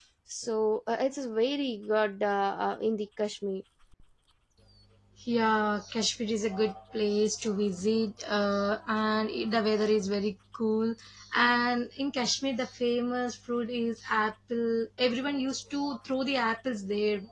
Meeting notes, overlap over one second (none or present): none